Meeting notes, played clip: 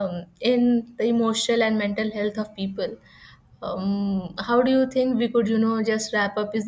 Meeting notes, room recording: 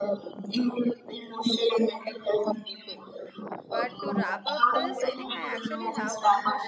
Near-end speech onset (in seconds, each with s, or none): 3.7 s